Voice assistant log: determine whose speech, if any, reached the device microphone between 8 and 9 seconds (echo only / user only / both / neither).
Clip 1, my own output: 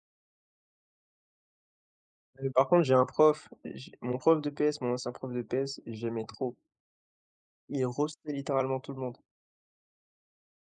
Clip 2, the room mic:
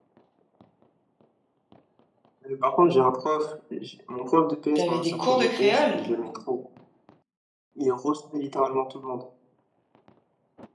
echo only